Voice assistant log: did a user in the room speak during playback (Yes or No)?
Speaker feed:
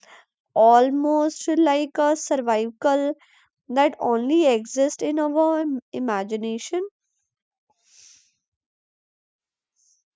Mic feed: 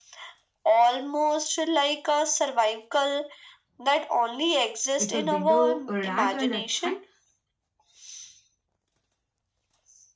Yes